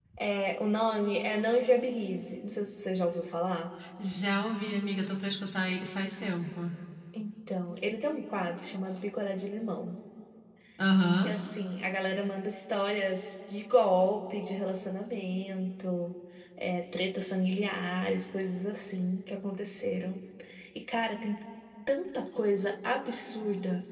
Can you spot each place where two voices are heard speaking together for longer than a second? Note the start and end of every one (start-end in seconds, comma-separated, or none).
none